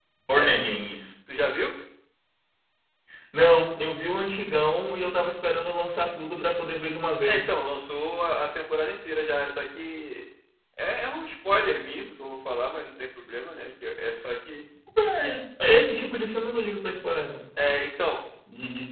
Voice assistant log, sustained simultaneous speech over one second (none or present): none